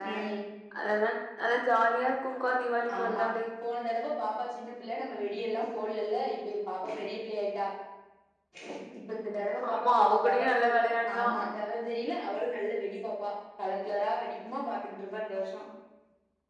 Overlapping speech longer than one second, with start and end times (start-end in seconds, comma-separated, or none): 9.7-11.3